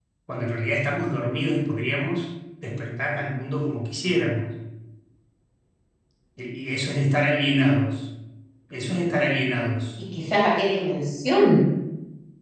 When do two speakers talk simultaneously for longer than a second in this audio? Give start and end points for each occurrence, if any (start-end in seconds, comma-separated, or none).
none